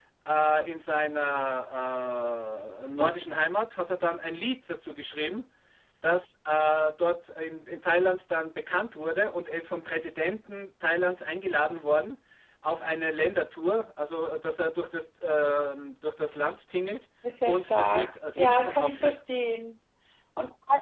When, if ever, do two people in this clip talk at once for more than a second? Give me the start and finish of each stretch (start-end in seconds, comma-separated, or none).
17.5-19.2